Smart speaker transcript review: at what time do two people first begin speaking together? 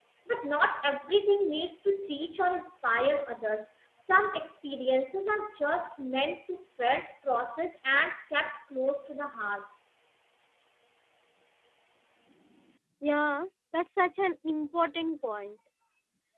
none

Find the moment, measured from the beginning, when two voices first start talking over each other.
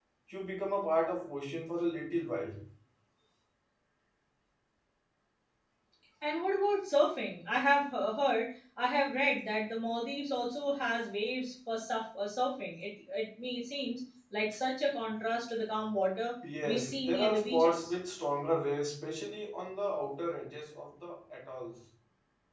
16.4 s

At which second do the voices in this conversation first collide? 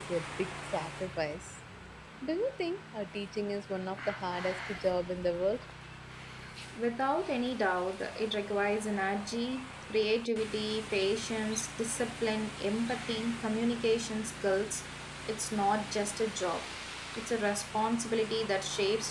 none

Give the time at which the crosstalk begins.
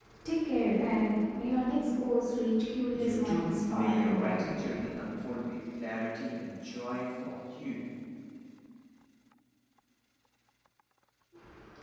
2.9 s

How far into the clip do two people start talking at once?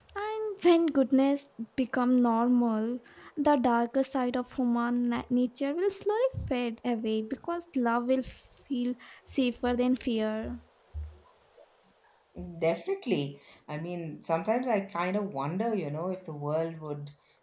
none

